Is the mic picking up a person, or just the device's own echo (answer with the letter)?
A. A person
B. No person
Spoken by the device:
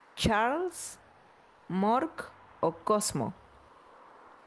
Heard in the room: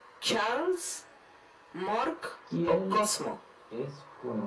A